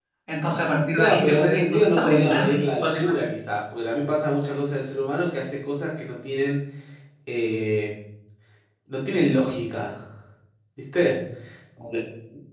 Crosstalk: present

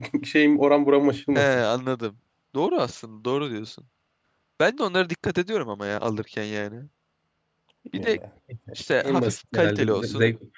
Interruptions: present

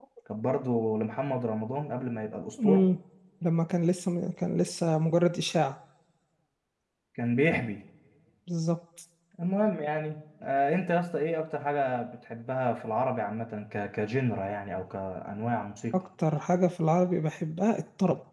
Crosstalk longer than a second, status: none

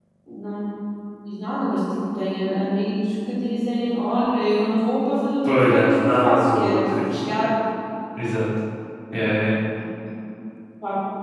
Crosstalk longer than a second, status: present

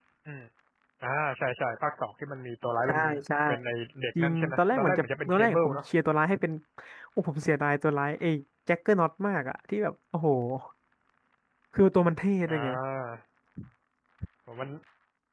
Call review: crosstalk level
present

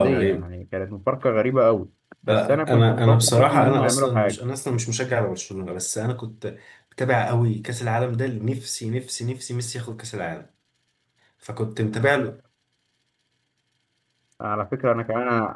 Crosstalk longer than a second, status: present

